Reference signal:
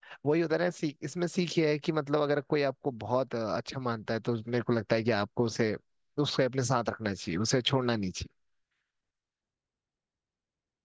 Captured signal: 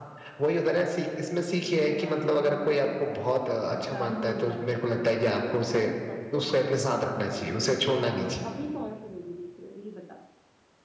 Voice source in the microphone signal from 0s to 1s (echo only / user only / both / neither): echo only